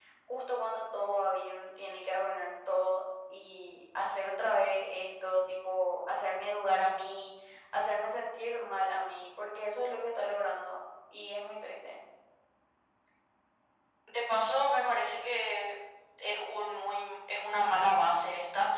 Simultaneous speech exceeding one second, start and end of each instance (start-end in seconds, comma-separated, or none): none